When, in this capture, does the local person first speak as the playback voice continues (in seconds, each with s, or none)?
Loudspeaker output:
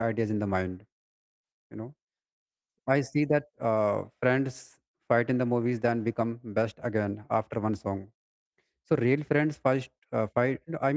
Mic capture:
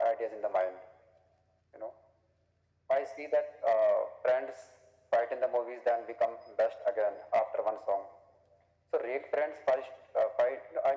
none